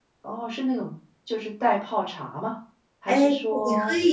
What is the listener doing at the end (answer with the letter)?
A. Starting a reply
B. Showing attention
A